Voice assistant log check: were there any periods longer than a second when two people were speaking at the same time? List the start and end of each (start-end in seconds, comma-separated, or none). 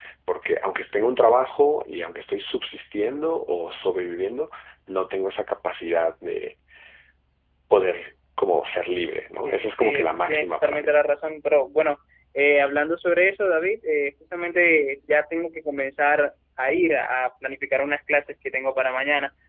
9.4-10.9